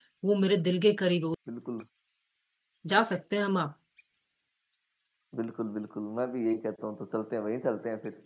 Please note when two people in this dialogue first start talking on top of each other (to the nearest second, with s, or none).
none